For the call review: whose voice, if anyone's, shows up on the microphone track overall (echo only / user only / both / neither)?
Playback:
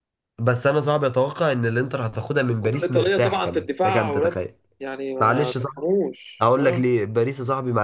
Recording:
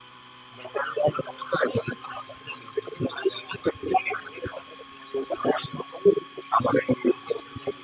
echo only